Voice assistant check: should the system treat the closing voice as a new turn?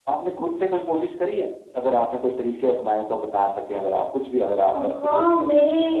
Yes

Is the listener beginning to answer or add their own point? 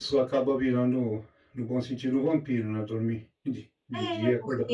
Yes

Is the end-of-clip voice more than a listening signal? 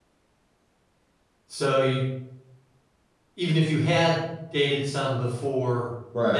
No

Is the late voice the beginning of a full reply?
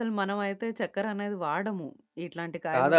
Yes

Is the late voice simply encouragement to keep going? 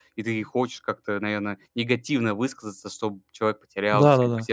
No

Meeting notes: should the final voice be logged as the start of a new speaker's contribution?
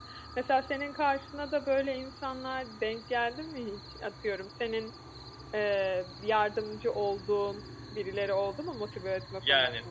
Yes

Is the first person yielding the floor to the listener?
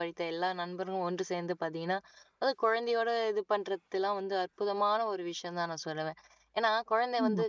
No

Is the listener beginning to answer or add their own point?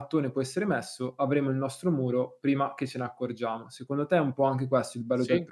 Yes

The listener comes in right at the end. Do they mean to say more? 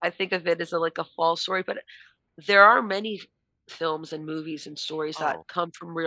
No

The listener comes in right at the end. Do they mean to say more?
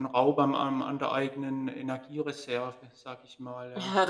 Yes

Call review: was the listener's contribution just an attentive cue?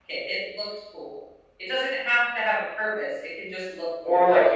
No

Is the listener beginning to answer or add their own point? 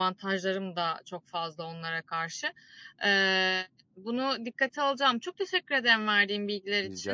No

